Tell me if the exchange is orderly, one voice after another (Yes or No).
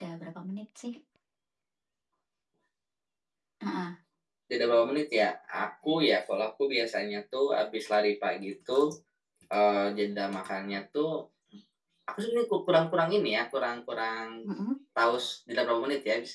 Yes